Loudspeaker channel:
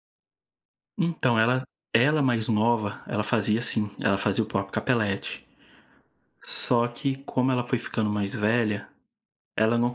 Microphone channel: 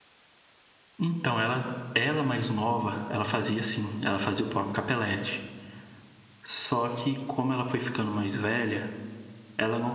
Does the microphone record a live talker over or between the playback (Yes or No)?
No